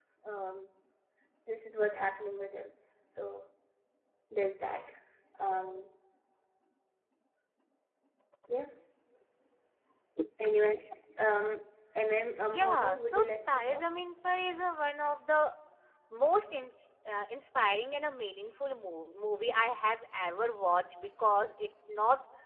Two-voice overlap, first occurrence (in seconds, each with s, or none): 12.5 s